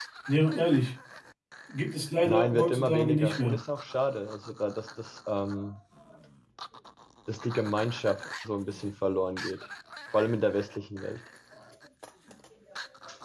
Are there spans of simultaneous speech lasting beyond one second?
Yes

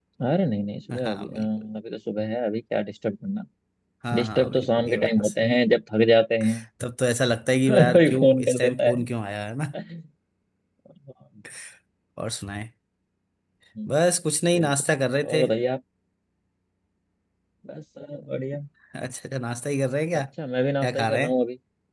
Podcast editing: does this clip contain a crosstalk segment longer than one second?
Yes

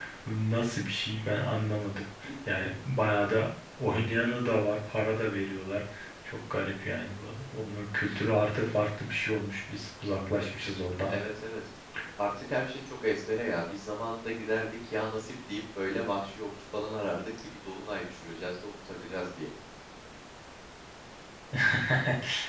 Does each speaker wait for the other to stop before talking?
Yes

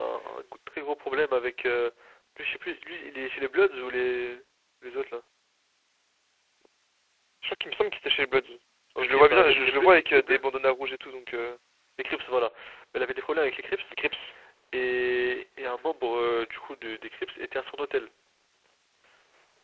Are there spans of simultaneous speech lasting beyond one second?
Yes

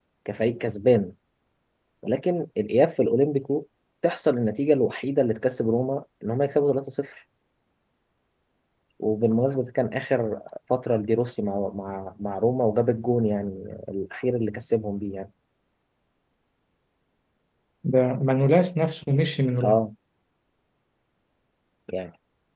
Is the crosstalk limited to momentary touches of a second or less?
Yes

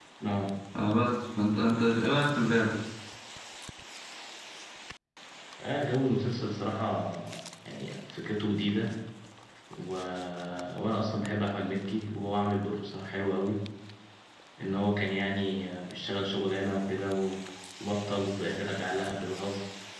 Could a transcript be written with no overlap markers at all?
Yes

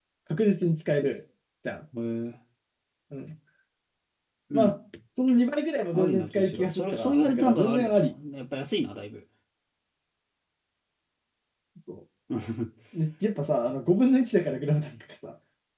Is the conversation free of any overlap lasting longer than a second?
No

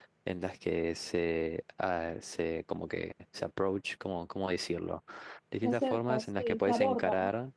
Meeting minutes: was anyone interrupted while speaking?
Yes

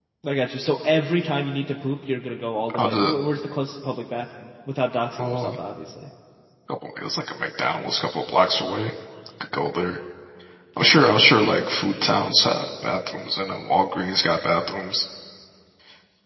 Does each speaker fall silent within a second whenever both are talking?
Yes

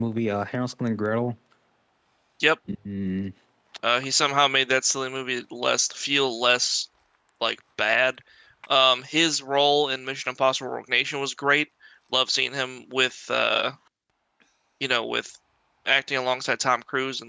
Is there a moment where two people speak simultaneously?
No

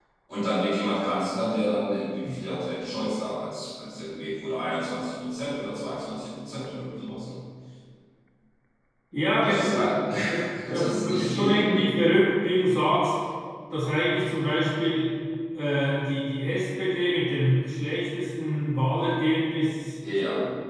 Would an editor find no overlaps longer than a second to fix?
No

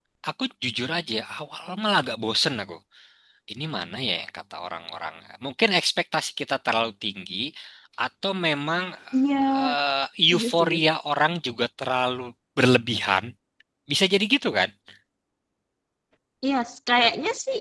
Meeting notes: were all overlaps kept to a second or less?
Yes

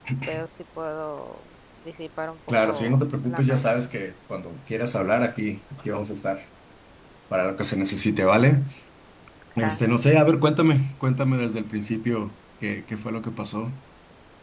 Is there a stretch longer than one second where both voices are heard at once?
Yes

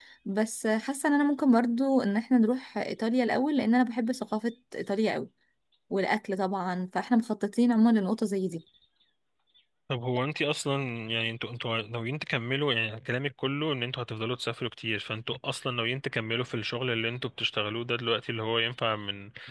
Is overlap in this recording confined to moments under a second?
Yes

